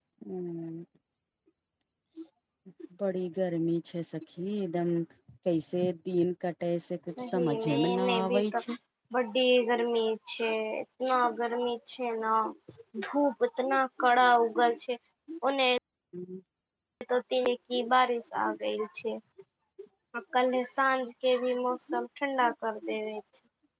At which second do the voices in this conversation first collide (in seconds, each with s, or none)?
7.1 s